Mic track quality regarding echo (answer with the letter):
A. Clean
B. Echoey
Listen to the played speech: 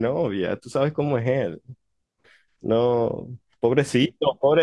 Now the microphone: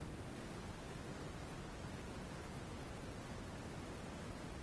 A